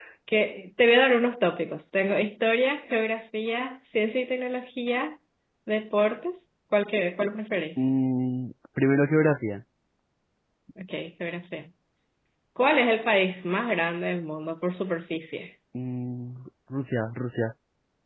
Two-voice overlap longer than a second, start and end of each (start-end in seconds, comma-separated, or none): none